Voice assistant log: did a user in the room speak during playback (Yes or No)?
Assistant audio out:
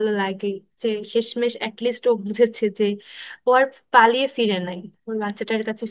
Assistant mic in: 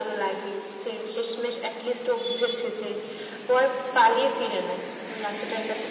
No